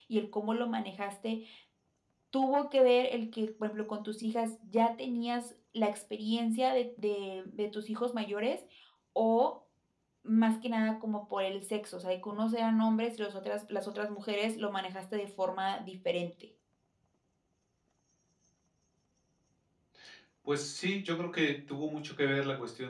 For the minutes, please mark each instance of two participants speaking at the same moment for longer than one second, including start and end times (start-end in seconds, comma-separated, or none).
none